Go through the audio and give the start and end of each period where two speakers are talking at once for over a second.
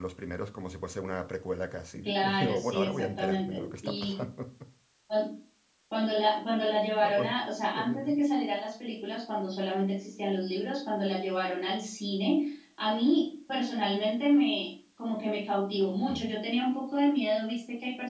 2.0-4.2

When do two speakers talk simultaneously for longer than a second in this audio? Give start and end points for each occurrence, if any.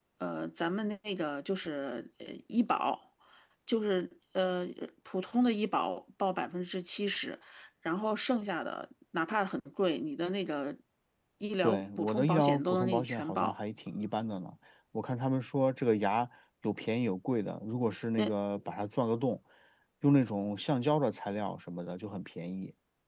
11.6-13.6

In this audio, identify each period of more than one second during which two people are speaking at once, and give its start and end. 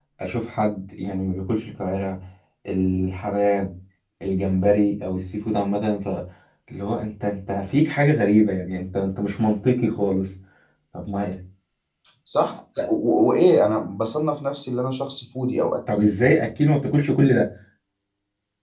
none

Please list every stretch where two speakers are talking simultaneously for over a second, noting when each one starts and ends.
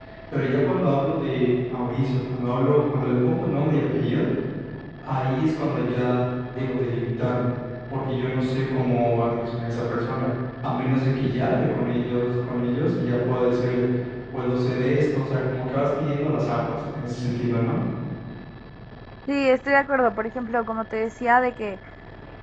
none

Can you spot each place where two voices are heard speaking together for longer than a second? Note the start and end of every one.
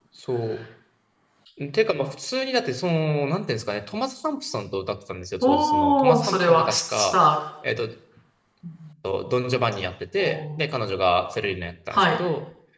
5.4-7.2

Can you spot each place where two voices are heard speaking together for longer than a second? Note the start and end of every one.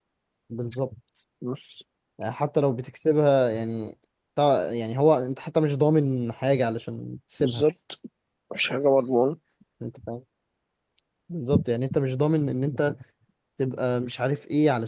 none

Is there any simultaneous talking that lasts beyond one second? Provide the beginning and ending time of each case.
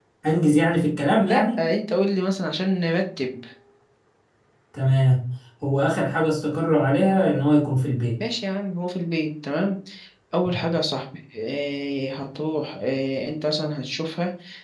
none

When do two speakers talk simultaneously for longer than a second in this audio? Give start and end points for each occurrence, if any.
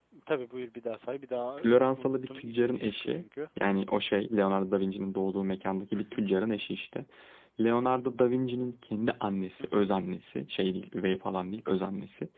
1.6-3.2

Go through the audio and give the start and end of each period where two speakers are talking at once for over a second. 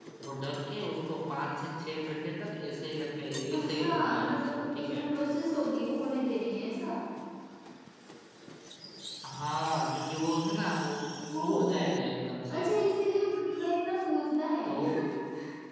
3.5-5.0

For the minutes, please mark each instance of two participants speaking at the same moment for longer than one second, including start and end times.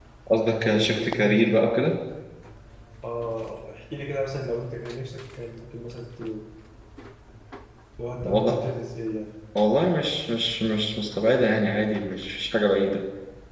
0.7-1.9

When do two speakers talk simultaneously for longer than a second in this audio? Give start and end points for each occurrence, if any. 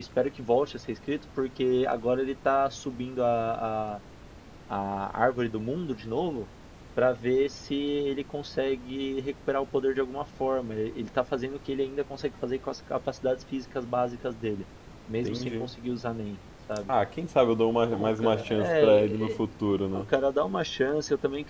17.9-19.4

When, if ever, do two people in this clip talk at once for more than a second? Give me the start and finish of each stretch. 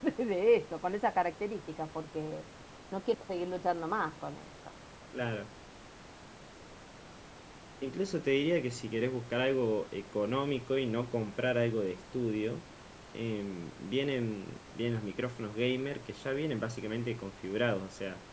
none

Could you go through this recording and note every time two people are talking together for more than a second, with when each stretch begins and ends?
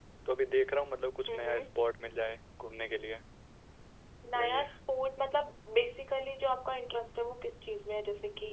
none

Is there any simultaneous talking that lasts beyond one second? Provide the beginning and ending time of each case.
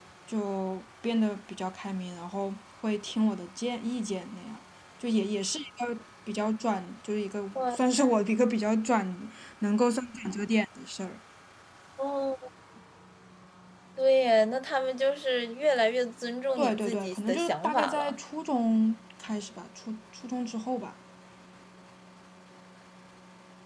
16.6-18.2

